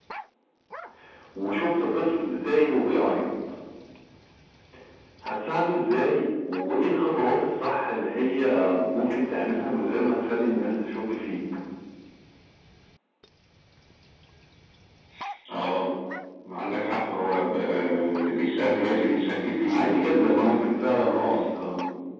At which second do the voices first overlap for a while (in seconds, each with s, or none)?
18.9 s